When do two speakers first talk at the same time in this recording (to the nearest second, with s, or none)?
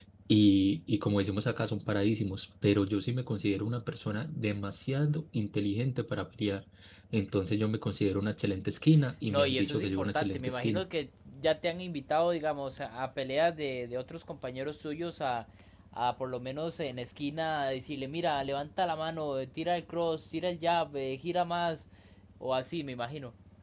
9 s